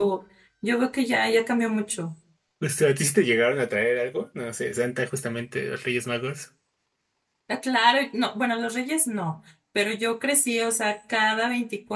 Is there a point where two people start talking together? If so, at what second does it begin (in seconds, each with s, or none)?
none